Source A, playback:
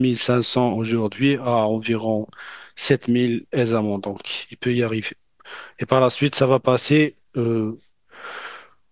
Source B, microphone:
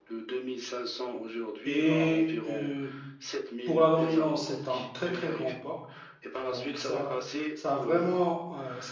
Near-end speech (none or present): present